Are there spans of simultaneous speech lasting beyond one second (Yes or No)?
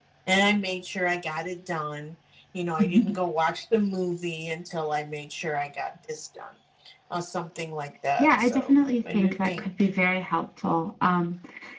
Yes